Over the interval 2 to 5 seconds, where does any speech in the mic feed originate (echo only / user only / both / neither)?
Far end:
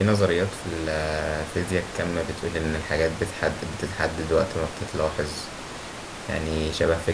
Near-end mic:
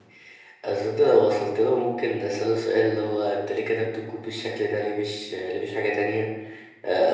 user only